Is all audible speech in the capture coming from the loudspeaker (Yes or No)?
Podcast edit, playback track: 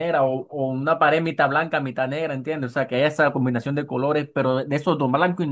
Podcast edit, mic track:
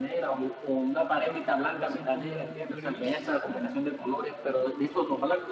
No